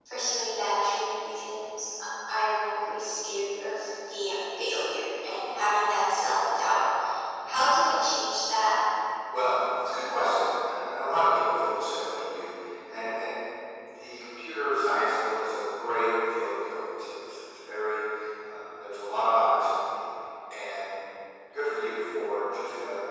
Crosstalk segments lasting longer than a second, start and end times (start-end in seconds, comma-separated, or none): none